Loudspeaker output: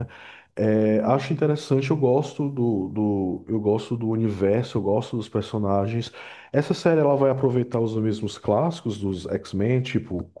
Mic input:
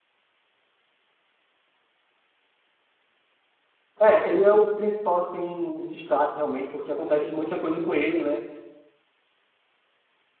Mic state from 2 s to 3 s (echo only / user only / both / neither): neither